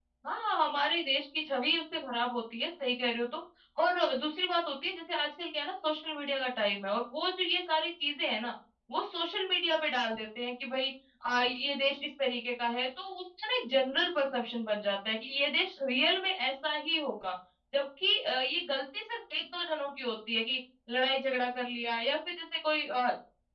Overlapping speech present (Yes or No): No